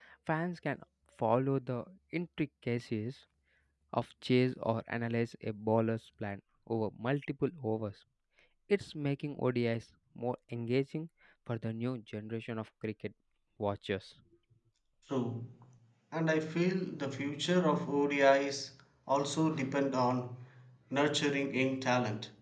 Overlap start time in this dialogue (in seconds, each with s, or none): none